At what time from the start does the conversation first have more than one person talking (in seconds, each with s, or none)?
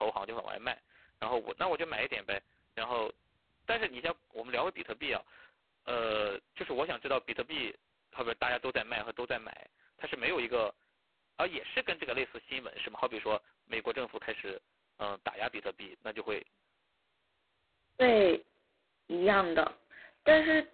none